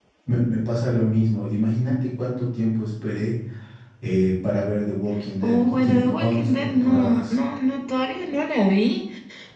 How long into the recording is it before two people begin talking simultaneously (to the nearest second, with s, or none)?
5 s